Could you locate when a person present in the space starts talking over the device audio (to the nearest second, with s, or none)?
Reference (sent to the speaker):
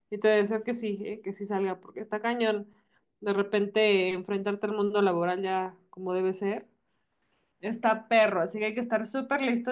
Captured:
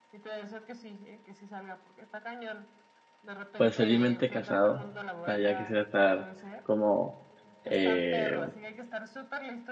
4 s